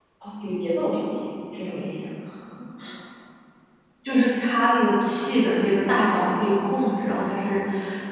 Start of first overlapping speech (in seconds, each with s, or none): none